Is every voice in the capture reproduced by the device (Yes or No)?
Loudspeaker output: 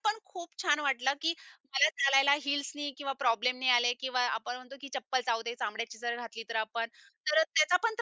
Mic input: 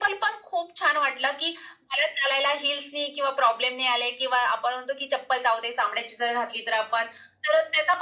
Yes